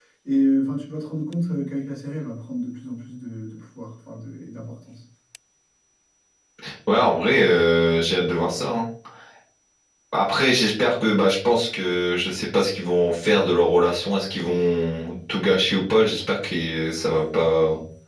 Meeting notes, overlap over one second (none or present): none